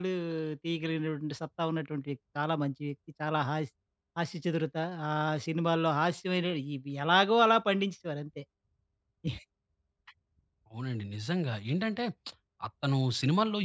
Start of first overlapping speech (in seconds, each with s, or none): none